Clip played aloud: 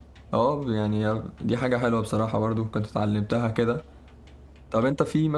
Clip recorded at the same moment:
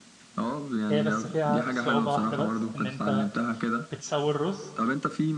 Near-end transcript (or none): هي بس فيها صعوبة واحدة بس ان انت بتسوي الرز